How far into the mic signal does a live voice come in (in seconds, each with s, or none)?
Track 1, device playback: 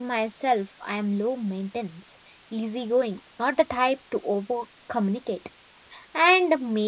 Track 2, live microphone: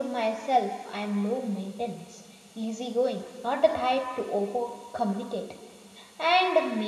none